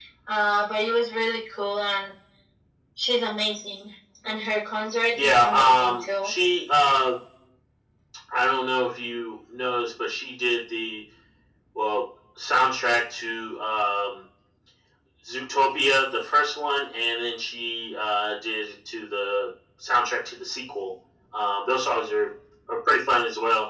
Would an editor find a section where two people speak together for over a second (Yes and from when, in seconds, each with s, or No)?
Yes, from 5.1 s